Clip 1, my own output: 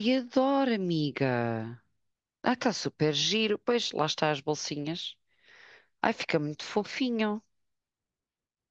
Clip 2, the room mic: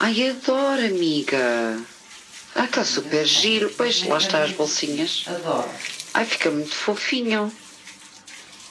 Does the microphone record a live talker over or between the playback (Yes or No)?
Yes